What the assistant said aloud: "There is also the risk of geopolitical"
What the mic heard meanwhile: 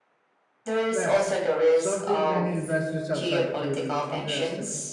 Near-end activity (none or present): present